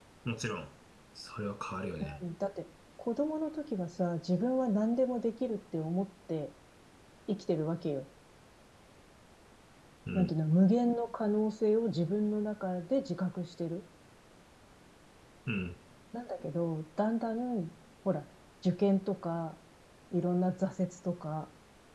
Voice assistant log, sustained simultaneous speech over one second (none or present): none